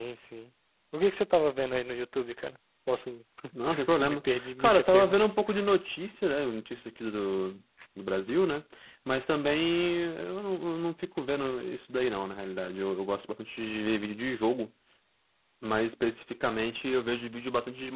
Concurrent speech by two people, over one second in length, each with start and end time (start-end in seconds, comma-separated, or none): 4.0-5.2